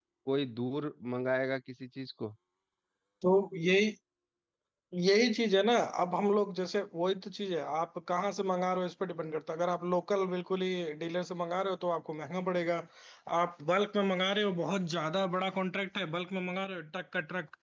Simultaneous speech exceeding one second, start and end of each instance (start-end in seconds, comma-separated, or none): none